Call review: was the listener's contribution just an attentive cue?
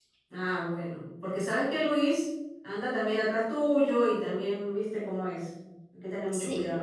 No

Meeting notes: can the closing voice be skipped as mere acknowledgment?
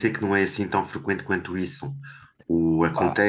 Yes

